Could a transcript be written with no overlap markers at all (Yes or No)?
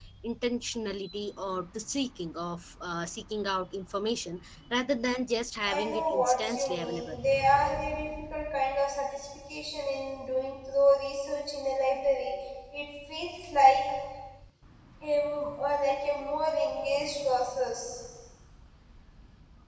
No